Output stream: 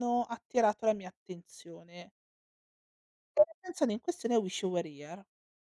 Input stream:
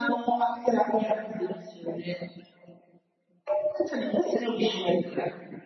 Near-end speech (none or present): none